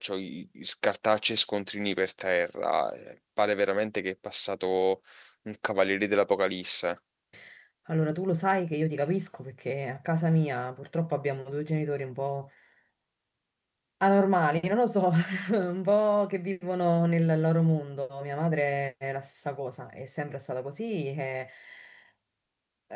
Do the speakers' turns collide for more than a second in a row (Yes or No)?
No